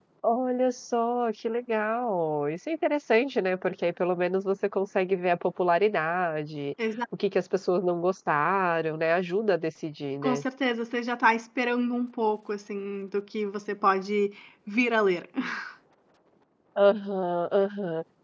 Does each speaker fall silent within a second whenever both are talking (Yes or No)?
Yes